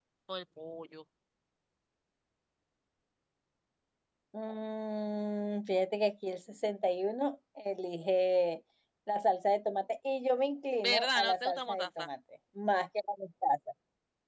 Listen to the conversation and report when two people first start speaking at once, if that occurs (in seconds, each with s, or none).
10.8 s